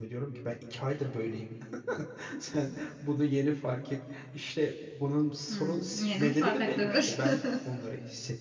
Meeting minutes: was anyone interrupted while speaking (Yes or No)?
Yes